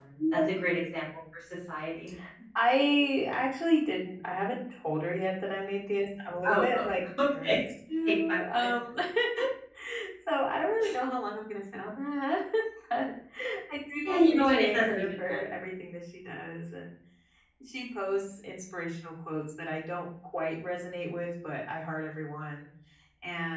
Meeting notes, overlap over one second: present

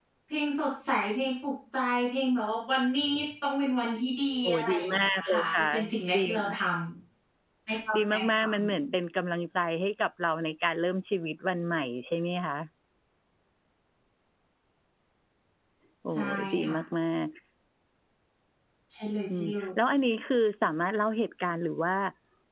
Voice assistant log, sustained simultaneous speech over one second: present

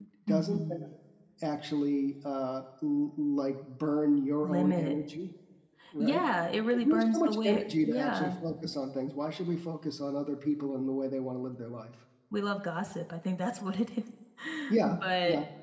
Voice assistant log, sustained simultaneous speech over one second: present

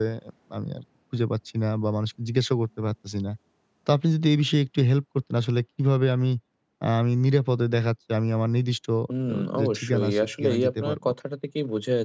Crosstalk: present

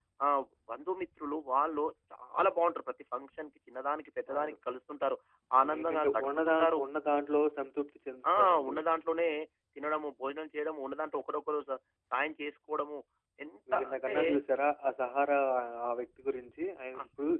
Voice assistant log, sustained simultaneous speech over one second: present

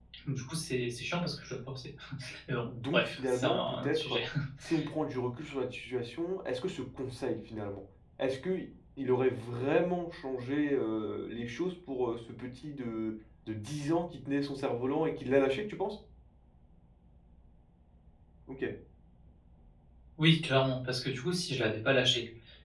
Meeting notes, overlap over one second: present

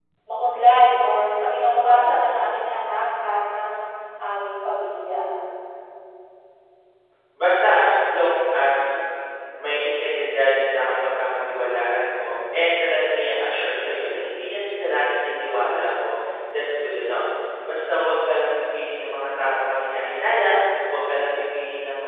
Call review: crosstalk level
none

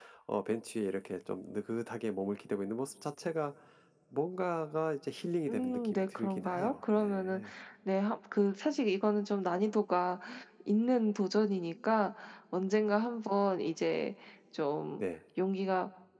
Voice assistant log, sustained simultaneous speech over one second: present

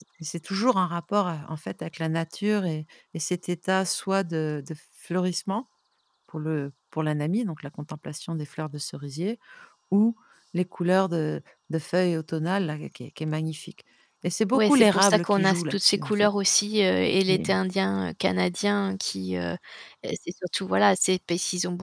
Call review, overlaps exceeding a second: present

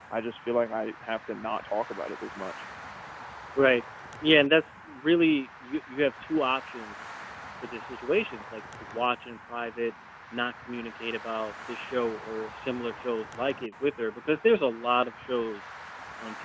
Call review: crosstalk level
none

